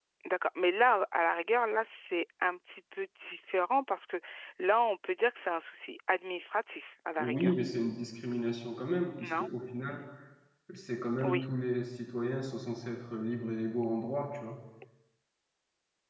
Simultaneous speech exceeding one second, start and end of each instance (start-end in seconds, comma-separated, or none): none